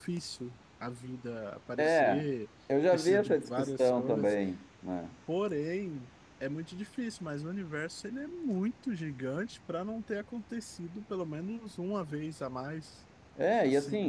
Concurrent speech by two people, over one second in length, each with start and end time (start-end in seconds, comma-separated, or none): 2.9-4.3